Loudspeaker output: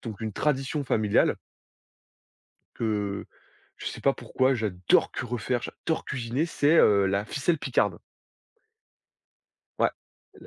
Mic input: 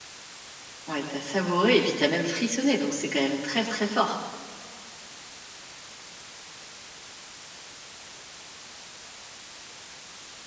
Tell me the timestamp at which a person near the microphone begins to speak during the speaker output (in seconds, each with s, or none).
0.9 s